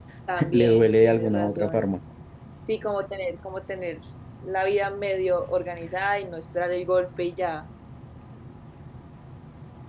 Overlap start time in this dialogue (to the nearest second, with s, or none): 1 s